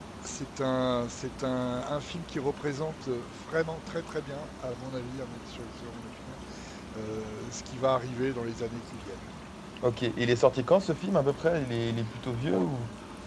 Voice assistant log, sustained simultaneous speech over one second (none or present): none